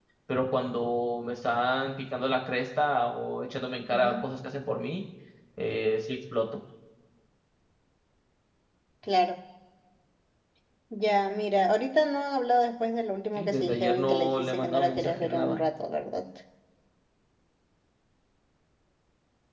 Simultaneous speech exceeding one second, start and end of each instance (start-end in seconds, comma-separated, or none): 13.3-15.6